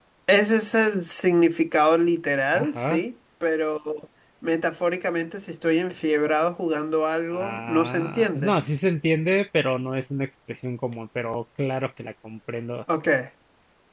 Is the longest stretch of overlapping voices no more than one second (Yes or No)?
No